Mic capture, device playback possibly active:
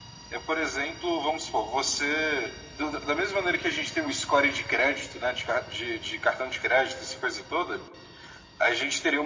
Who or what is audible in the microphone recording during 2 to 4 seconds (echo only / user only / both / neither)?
echo only